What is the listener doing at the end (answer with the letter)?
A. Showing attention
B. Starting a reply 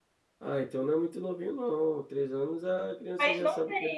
B